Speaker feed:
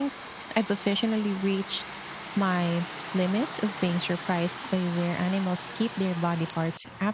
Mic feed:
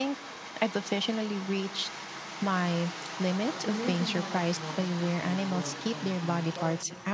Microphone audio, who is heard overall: both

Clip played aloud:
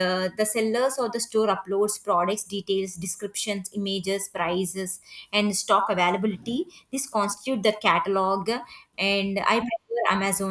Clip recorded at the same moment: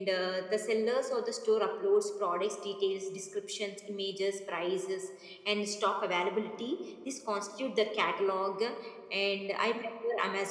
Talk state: echo only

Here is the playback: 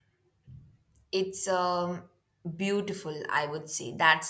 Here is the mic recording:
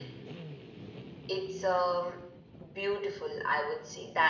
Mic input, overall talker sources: echo only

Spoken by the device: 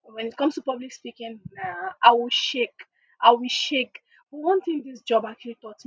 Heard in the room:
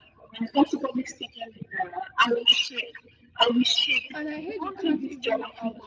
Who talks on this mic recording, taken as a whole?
both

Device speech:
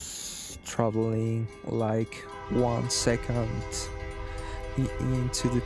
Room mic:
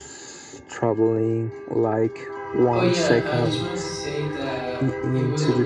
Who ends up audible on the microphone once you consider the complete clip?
both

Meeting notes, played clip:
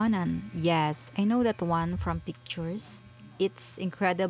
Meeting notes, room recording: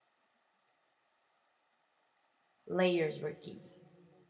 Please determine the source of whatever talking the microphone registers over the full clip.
user only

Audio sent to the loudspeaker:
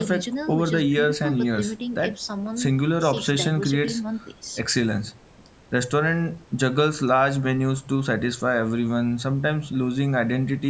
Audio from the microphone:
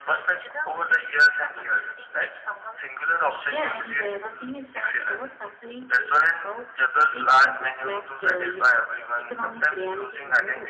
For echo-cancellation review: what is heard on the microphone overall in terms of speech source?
both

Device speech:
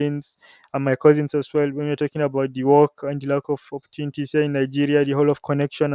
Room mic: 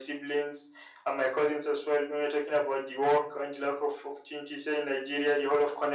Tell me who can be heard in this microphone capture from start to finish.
echo only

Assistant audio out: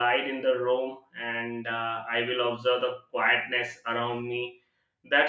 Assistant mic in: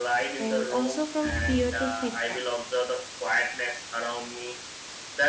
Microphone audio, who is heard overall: both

